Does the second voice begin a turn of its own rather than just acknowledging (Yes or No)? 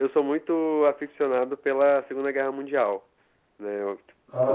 No